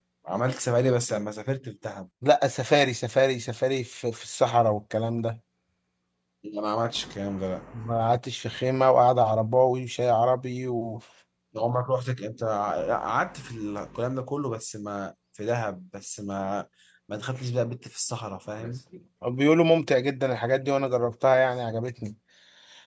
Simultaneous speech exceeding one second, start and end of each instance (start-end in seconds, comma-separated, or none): none